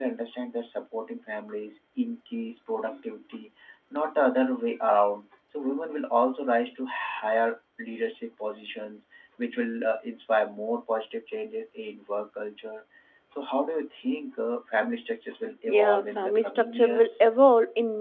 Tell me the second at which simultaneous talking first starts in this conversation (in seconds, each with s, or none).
15.7 s